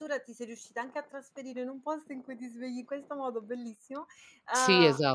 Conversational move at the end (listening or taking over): taking over